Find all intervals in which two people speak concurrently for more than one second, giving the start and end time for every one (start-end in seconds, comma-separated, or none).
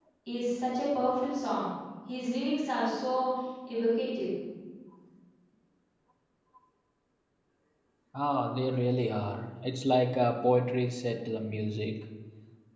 none